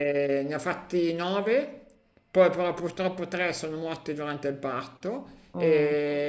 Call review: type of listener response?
listening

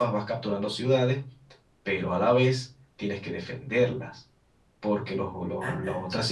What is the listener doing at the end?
listening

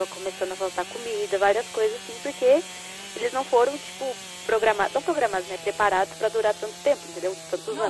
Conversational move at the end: taking over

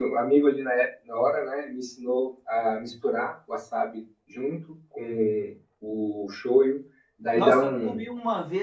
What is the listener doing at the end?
taking over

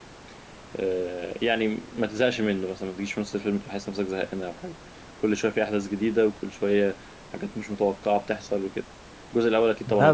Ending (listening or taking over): taking over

